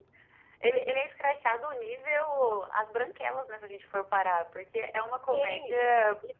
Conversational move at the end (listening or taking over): taking over